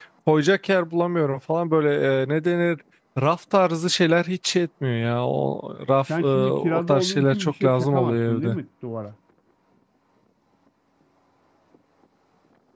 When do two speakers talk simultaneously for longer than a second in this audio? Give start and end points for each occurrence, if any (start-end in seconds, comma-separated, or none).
6.1-8.6